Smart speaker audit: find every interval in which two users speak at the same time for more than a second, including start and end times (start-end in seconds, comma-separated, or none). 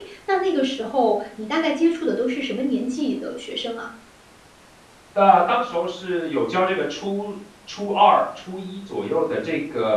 none